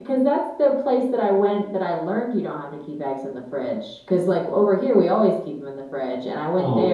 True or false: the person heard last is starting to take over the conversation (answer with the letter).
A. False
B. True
B